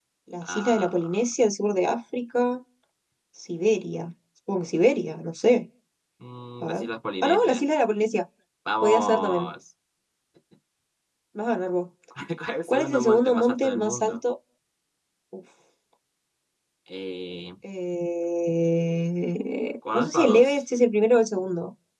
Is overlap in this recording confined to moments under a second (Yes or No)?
No